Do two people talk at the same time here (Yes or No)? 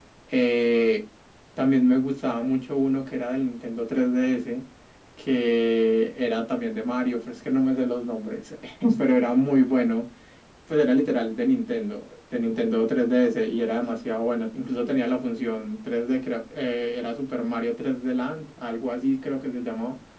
No